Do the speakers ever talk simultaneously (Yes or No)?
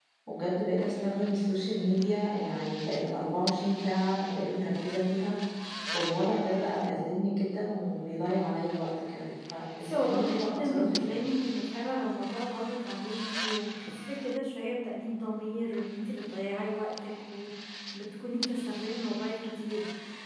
Yes